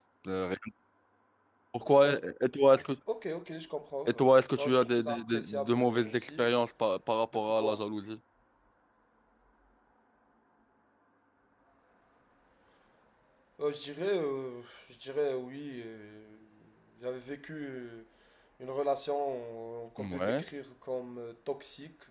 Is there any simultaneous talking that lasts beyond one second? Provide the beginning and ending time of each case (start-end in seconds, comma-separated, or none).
4.6-6.5